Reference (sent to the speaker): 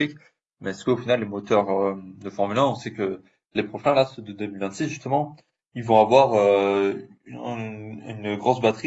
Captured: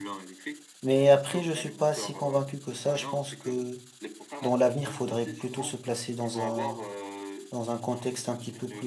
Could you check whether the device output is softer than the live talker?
Yes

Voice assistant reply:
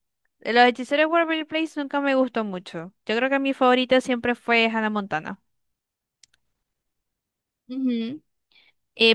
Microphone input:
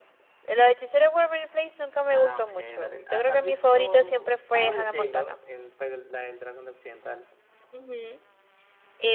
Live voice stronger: No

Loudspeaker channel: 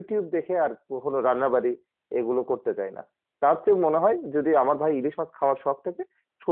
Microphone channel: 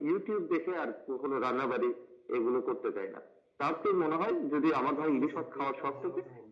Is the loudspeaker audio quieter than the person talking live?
No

